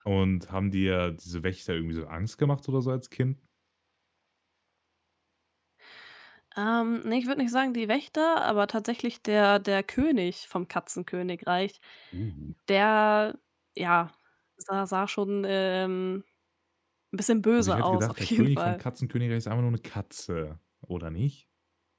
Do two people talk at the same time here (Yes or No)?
Yes